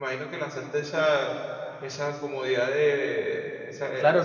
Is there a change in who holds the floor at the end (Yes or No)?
Yes